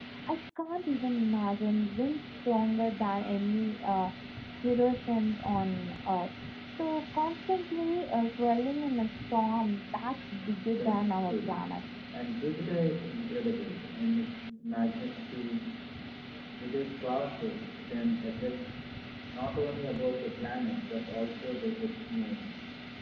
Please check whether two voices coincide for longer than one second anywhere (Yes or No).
Yes